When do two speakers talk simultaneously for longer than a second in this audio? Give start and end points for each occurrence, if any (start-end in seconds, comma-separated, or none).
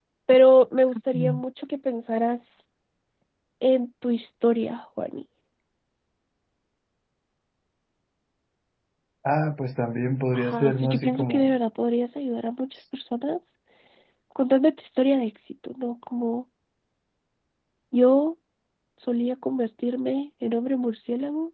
10.3-11.5